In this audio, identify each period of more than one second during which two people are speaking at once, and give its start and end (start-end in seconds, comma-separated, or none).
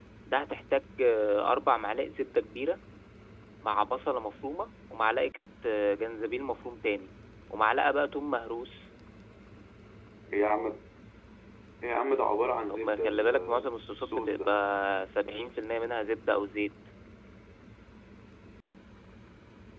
12.7-14.6